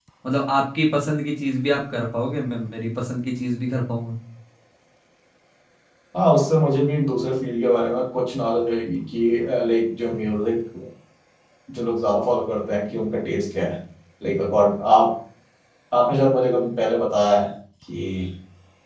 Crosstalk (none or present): none